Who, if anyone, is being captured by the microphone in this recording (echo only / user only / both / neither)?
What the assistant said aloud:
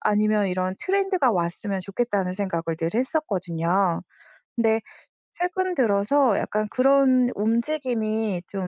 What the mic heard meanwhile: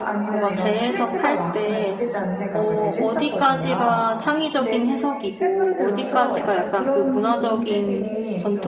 both